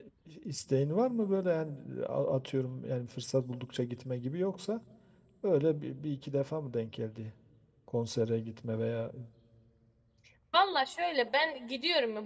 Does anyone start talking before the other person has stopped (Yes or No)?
No